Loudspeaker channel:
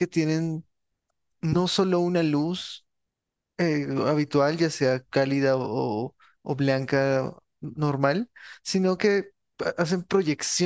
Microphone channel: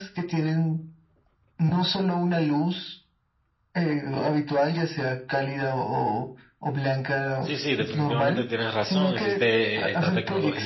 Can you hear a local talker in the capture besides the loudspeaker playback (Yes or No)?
Yes